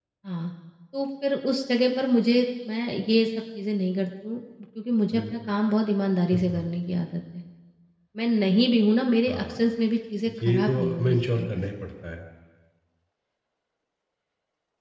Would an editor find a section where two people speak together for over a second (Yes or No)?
Yes